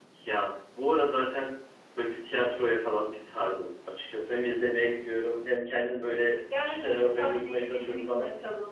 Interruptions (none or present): present